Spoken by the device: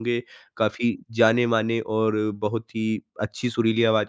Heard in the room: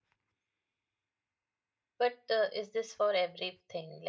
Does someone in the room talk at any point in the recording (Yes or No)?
Yes